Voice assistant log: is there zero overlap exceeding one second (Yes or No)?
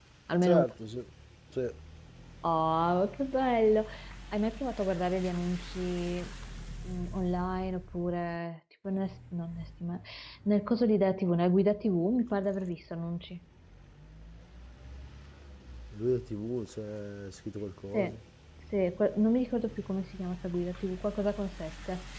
Yes